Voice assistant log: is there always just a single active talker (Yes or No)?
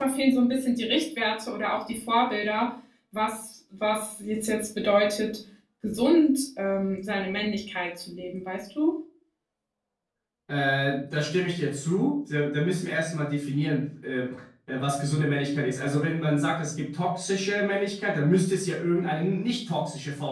Yes